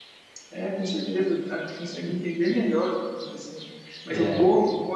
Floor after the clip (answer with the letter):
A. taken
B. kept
B